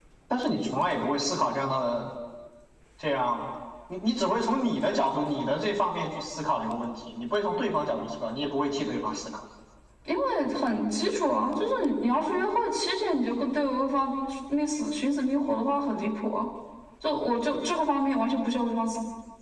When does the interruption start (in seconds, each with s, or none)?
none